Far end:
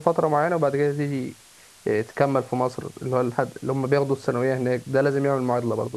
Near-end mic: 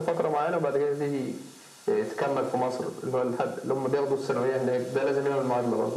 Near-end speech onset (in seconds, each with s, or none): none